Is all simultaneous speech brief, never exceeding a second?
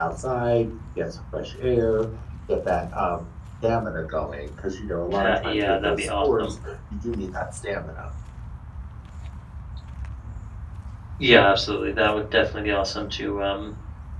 No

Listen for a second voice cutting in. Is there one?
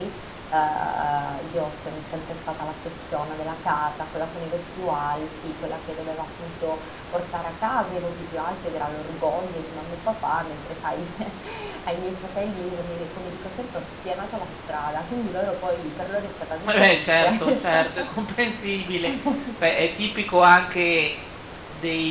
Yes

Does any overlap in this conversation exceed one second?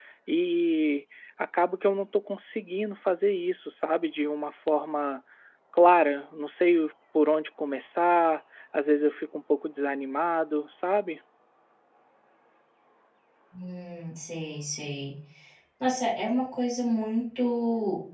No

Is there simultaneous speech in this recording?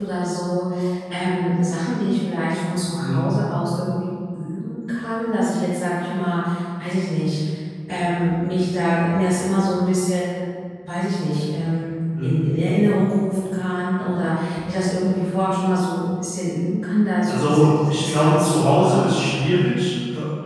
Yes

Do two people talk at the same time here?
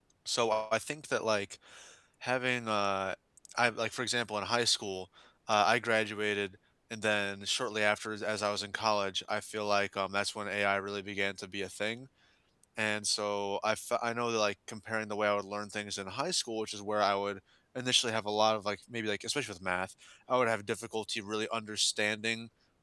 No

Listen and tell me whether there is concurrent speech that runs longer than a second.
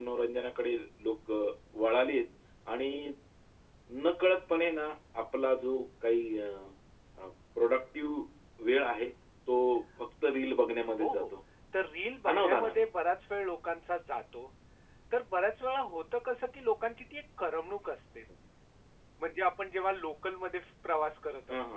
No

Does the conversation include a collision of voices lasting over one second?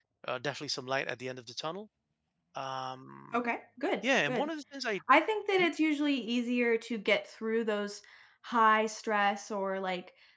No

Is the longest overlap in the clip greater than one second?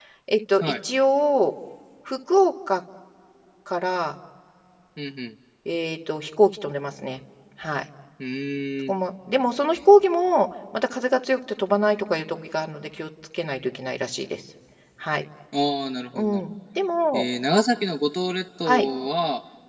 No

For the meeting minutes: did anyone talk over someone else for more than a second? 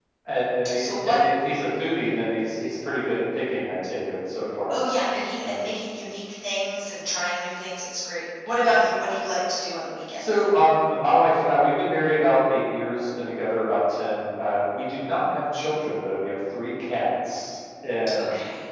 No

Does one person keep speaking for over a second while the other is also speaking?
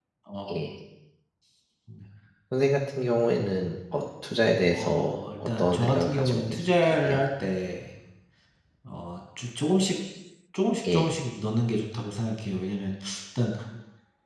Yes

